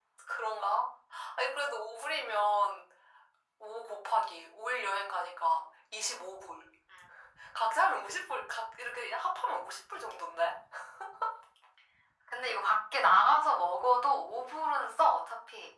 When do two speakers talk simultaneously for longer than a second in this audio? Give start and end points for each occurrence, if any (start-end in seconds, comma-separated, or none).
none